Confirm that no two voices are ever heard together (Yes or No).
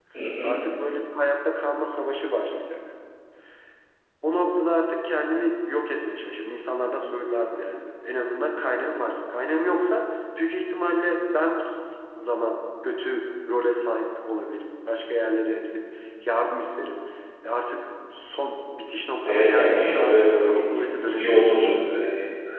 No